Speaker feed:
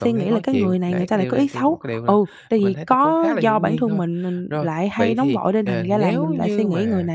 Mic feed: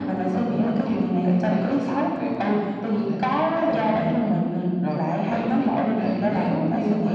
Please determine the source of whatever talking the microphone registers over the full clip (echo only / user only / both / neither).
echo only